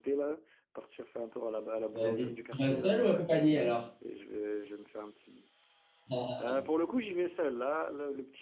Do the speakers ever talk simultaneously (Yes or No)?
Yes